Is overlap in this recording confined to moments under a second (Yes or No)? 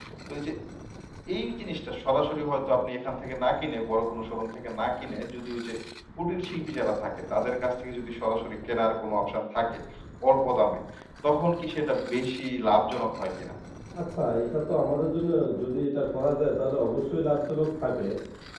Yes